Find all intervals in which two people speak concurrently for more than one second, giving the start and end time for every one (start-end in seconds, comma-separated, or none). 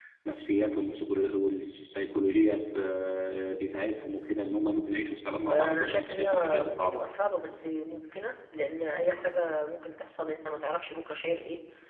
5.5-7.0